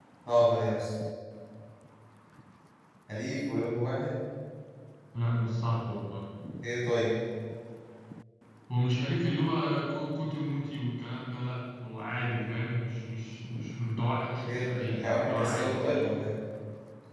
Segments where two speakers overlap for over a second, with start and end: 14.4-16.0

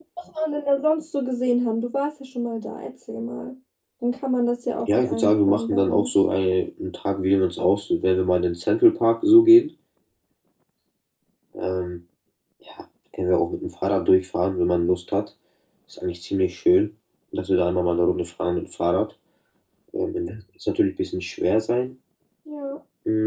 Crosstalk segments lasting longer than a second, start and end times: 4.9-6.1

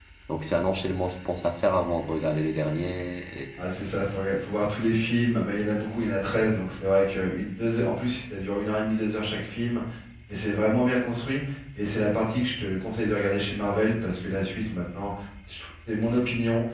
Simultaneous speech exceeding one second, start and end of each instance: none

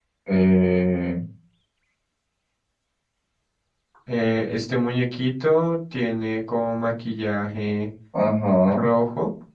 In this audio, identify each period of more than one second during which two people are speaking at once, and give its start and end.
none

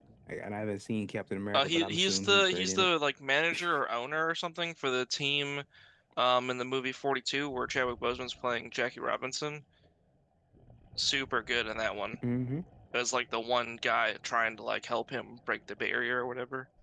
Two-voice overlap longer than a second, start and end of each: 1.5-2.9

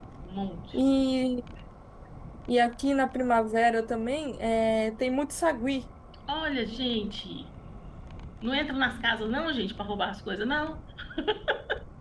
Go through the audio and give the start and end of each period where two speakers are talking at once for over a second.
none

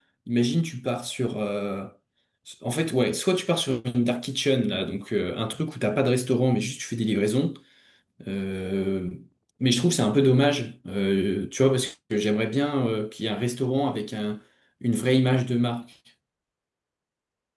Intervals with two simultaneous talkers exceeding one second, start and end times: none

